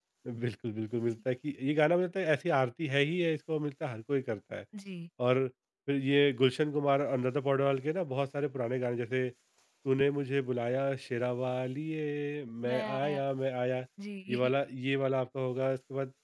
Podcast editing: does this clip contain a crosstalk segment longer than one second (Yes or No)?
No